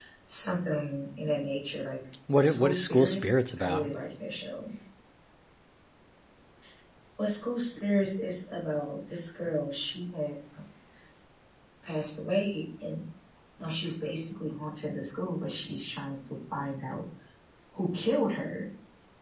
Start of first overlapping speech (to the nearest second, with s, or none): 2 s